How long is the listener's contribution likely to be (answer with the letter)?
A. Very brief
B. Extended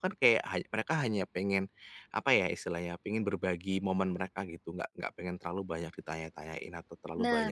A